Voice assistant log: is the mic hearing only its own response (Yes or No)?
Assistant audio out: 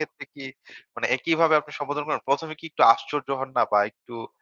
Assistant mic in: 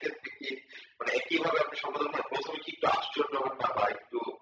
Yes